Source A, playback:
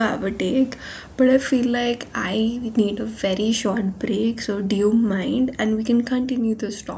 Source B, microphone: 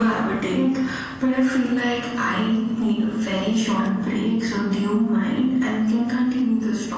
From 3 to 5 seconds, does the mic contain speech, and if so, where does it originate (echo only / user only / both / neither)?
echo only